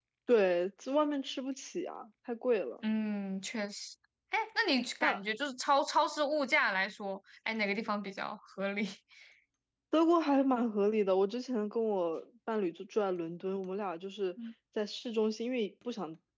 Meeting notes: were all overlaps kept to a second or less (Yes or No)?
Yes